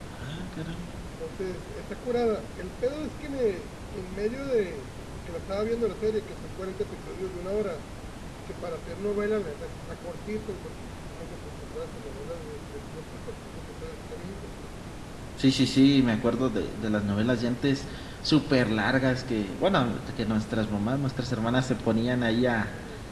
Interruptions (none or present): none